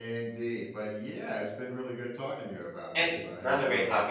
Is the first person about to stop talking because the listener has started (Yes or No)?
Yes